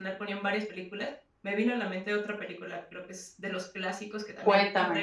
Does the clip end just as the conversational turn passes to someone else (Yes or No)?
No